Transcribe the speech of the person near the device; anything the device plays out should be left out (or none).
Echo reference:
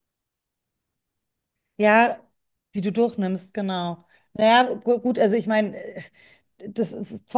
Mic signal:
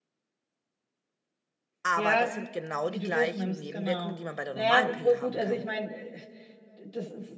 Aber das sind genau die gleichen Nebenwirkungen, die man bei der normalen Pille haben kann.